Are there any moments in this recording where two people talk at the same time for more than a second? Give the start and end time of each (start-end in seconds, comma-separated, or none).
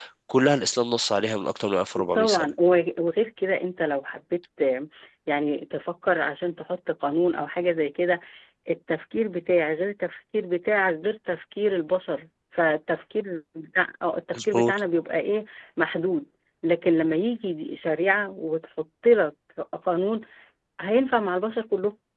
none